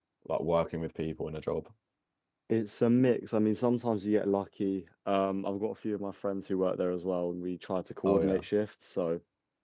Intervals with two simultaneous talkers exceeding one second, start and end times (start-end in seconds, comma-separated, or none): none